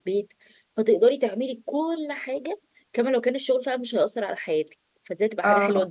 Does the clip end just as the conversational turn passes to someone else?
No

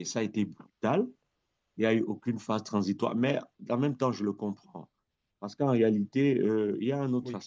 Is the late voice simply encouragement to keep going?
Yes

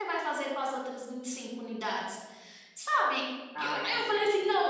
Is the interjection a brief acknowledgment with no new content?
Yes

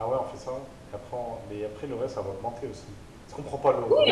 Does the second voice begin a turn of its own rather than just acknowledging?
Yes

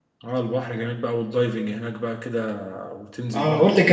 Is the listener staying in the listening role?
No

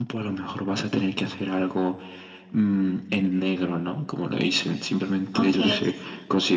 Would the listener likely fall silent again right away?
Yes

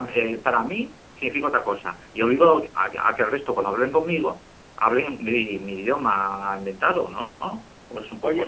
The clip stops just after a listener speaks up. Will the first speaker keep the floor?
No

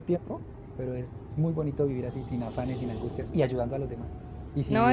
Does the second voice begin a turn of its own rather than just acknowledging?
Yes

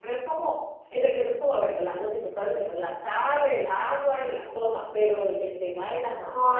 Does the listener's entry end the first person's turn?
Yes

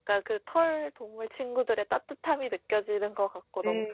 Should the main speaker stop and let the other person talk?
Yes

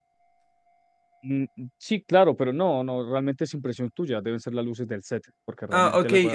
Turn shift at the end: Yes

